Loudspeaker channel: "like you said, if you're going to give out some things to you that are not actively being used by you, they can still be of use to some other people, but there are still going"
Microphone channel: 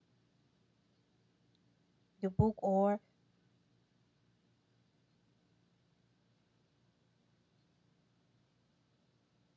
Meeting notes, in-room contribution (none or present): present